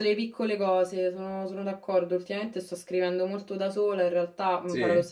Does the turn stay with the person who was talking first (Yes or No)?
Yes